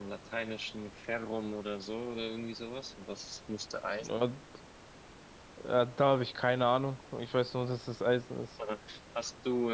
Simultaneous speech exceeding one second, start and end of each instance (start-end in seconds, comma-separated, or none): none